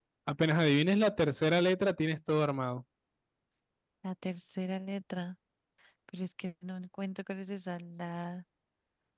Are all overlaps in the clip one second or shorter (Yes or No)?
Yes